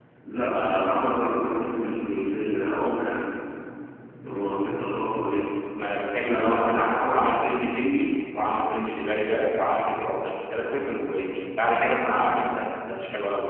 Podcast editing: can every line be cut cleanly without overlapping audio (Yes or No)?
No